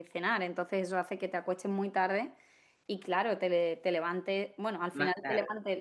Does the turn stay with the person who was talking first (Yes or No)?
Yes